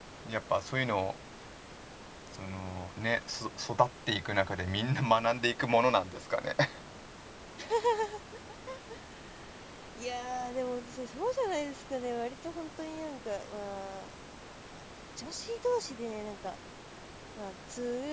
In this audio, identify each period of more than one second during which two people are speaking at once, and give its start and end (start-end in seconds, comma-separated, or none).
none